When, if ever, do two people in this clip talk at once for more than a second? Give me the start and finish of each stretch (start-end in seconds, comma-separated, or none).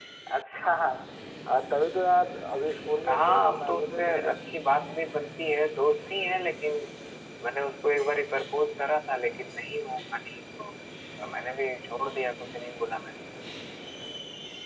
3.1-4.3